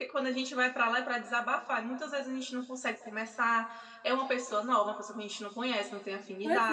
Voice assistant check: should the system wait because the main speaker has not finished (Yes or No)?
No